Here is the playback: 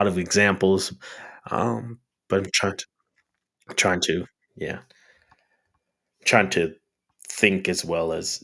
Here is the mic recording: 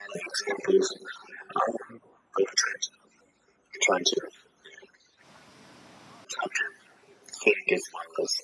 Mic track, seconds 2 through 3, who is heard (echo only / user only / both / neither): echo only